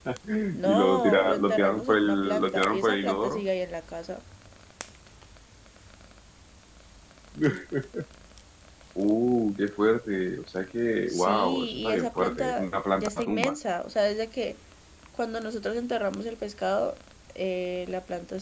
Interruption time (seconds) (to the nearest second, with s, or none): 1 s